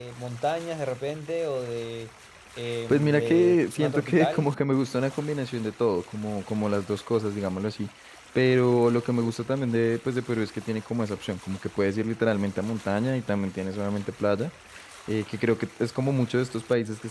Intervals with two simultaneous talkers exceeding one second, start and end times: 2.9-4.5

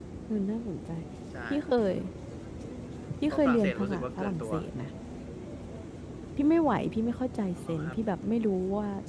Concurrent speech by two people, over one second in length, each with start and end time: 3.3-4.5

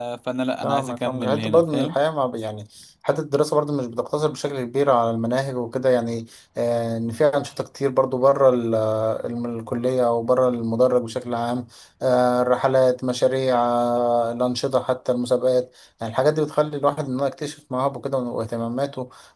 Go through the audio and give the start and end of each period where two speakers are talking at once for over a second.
0.6-2.0

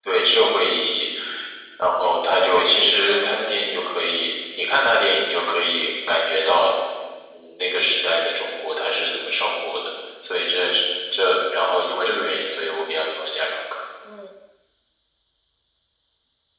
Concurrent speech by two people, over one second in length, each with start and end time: 2.4-3.7

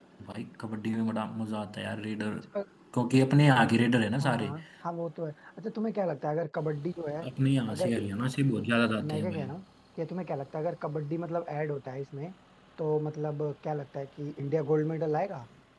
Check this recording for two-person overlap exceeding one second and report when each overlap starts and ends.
none

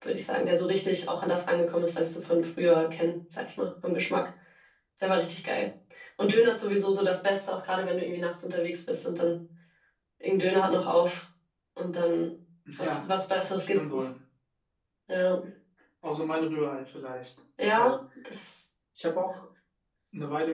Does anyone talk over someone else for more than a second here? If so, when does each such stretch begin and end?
none

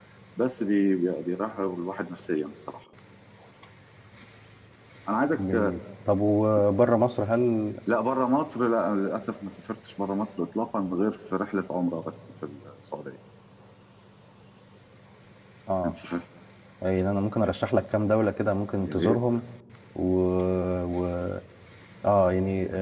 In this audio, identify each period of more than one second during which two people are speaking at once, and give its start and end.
none

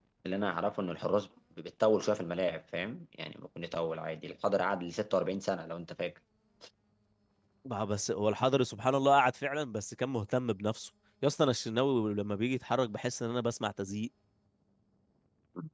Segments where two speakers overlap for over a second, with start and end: none

